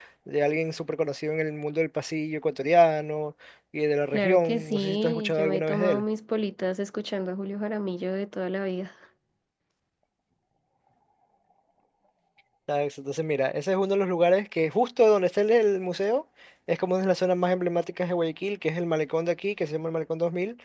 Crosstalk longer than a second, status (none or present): present